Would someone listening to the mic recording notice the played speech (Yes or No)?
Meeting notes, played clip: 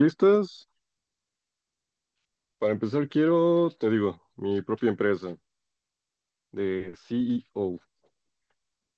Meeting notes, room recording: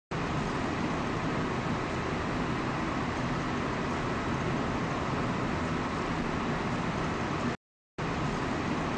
No